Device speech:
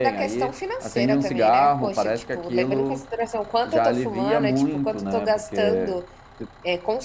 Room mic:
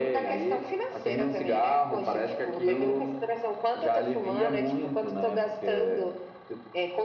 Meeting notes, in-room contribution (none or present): none